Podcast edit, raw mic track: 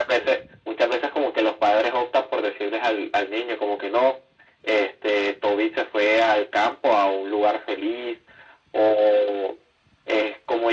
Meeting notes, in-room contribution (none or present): none